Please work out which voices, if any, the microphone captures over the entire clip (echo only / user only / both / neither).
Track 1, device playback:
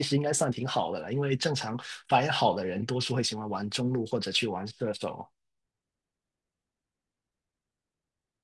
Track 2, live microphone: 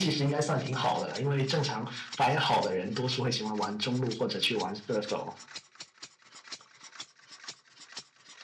echo only